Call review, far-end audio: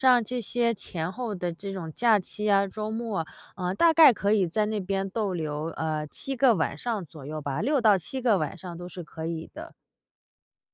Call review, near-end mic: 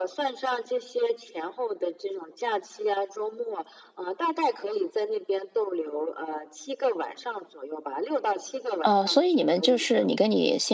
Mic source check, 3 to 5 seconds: echo only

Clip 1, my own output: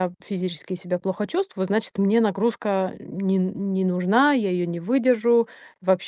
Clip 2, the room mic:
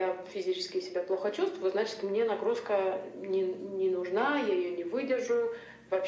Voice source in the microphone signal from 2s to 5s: echo only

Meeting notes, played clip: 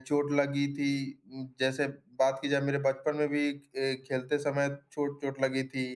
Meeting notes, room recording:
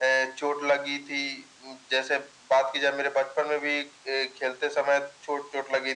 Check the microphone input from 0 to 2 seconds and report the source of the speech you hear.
echo only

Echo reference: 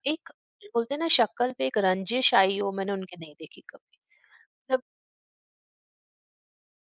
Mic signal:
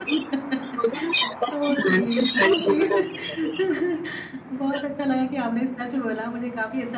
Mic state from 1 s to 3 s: both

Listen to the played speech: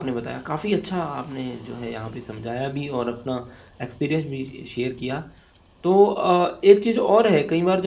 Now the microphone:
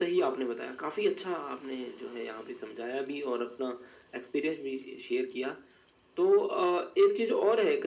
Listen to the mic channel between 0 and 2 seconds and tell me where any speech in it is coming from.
echo only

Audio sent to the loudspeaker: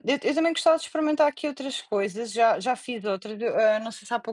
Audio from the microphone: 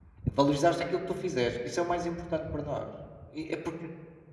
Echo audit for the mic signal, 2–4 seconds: user only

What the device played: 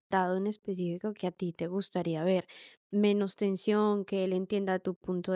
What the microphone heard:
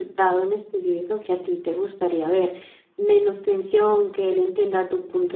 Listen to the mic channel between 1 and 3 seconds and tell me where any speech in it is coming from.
echo only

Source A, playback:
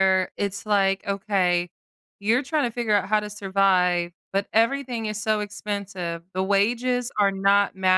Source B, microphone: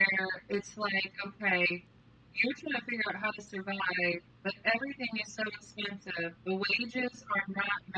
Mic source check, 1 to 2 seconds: echo only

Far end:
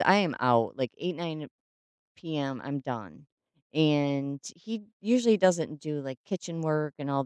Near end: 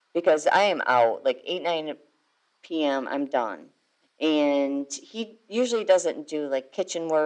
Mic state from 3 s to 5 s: echo only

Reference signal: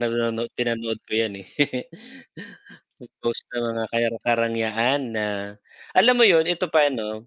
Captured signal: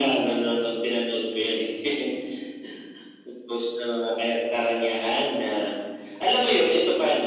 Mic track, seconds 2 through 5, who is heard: echo only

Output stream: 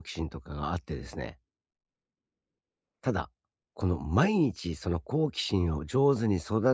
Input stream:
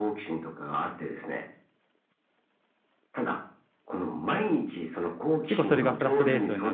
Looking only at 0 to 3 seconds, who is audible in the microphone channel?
echo only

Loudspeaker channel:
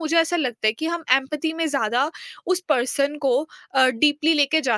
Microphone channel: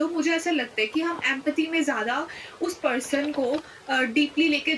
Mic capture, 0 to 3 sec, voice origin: echo only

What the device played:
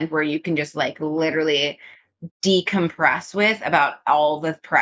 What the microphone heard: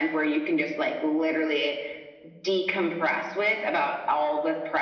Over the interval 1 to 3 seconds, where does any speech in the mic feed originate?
echo only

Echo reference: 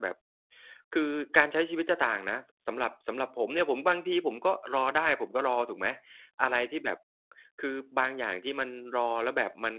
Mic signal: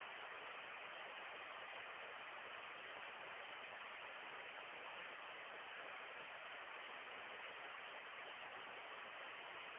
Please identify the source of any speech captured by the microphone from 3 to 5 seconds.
neither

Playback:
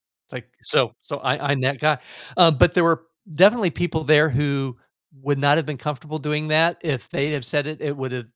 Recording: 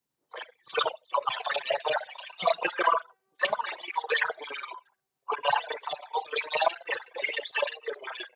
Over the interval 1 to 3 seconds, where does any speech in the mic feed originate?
echo only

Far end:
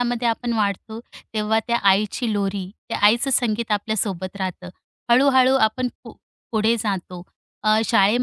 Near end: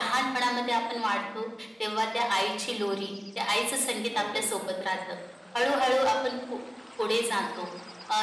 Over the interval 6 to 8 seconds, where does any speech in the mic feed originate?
echo only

